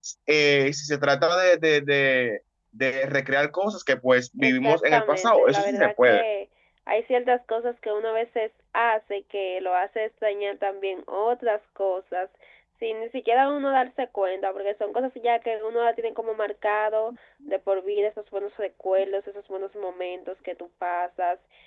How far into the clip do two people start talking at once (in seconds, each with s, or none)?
4.4 s